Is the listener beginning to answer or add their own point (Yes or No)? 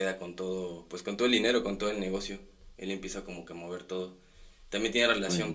No